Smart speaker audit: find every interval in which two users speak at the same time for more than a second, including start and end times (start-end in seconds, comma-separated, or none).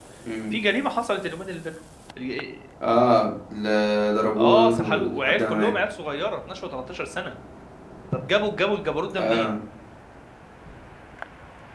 4.4-5.7